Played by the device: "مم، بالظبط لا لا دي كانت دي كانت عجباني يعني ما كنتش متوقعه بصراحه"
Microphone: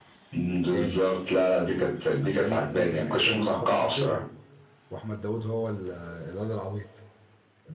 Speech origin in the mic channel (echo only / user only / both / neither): both